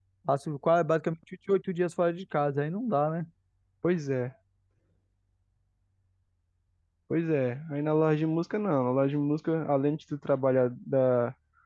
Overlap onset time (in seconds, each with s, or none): none